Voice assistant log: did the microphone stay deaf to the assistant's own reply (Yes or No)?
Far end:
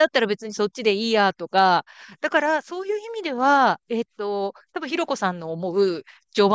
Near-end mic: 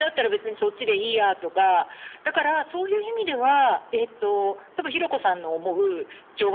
No